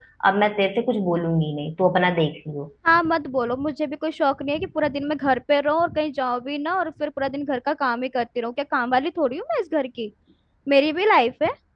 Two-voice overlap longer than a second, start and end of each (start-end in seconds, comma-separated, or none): none